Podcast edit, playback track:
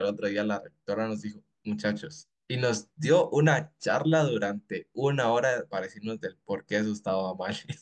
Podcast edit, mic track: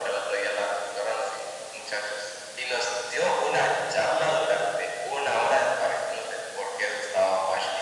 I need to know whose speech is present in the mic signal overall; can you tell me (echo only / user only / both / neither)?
echo only